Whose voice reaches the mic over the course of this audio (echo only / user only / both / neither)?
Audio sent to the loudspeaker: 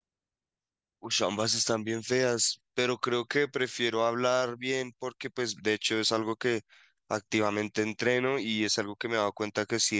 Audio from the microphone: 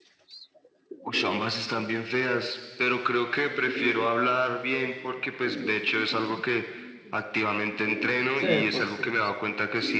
both